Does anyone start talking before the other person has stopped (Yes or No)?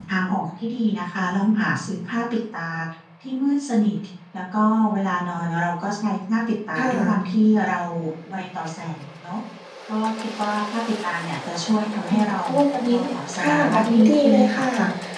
Yes